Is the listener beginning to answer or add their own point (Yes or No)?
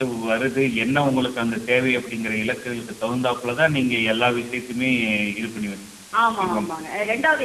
Yes